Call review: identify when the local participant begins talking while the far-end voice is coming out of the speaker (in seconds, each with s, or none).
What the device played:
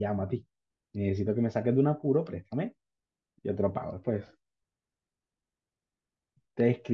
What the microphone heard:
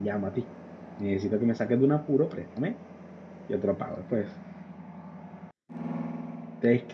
none